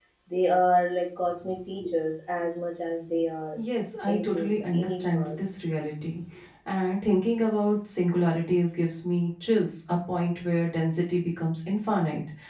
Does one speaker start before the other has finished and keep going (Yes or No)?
Yes